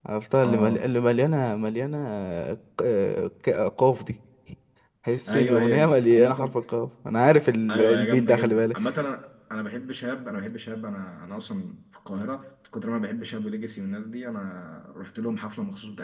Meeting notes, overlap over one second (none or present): present